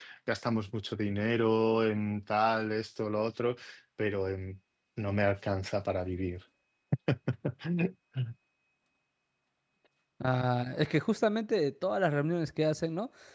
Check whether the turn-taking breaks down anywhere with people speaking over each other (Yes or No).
No